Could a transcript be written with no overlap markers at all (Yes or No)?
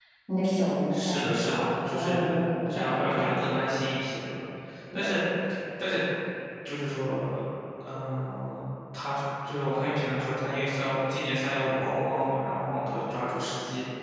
No